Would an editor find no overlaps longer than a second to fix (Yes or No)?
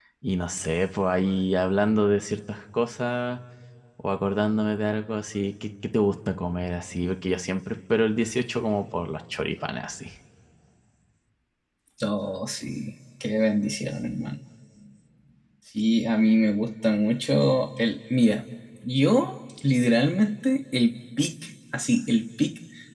Yes